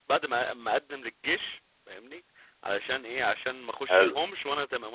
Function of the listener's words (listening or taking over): listening